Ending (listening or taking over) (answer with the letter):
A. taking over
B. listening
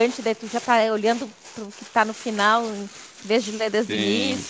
A